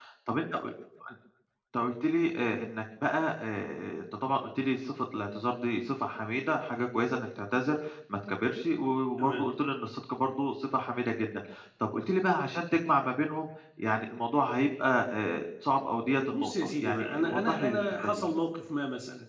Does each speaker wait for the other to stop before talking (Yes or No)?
No